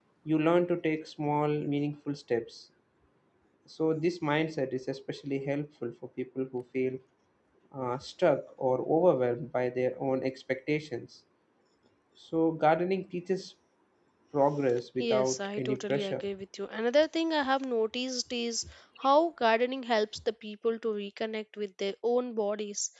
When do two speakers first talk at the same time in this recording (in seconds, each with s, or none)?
15.0 s